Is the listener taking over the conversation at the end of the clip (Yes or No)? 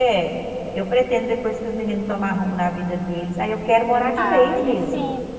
Yes